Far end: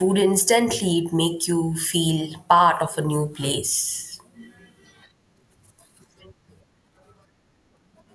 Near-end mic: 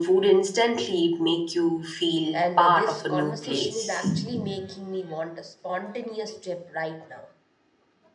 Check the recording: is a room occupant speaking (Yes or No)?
Yes